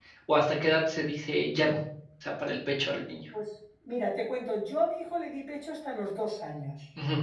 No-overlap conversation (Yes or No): Yes